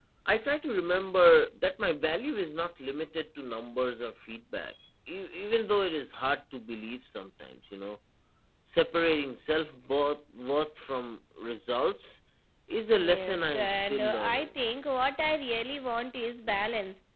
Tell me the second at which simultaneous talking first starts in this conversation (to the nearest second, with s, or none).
13 s